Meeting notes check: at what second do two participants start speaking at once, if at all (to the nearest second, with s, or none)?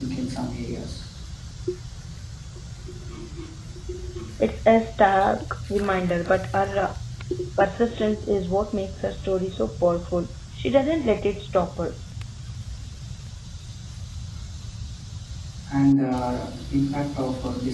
none